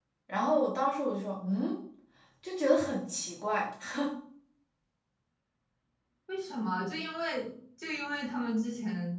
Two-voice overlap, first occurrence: none

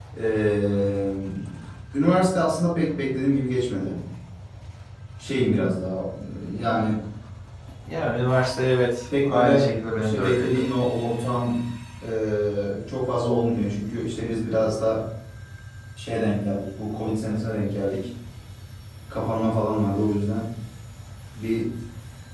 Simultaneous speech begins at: 9 s

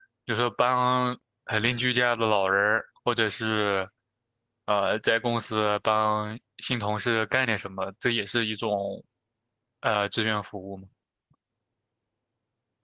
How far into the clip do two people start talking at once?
none

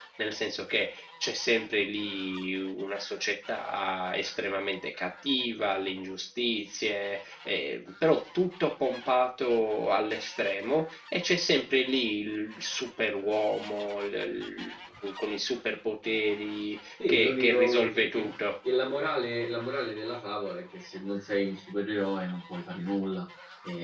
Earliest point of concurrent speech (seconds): 17 s

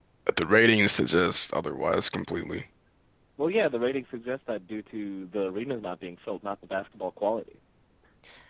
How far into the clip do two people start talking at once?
none

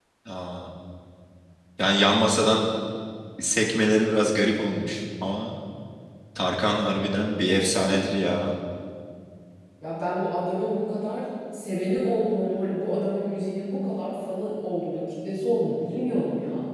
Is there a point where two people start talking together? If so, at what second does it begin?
none

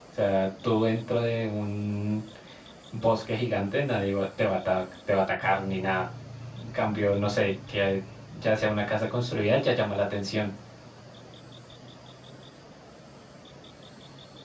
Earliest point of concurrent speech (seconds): none

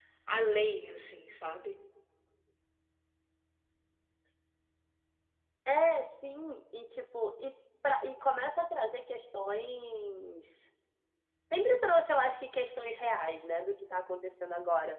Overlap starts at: none

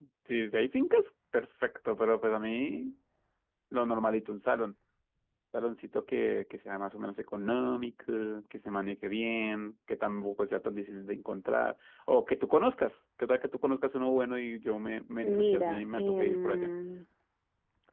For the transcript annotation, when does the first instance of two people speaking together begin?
15 s

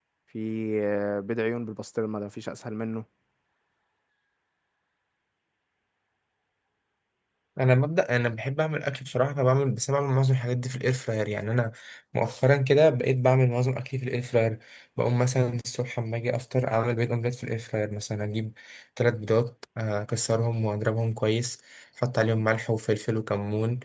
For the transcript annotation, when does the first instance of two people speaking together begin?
none

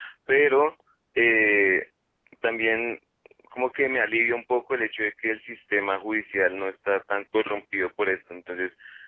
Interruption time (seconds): none

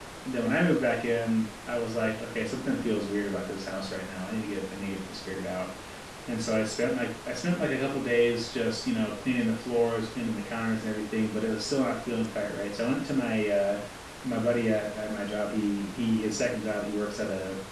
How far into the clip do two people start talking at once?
none

